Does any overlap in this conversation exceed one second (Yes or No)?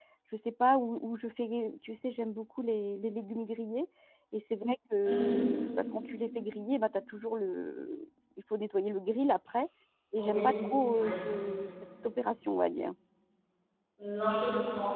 No